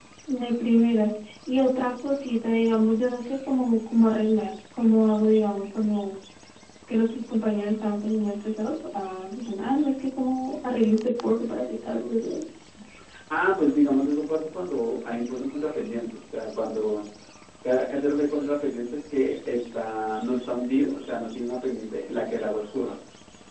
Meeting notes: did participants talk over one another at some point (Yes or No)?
No